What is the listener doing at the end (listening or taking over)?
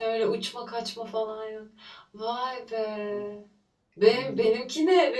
listening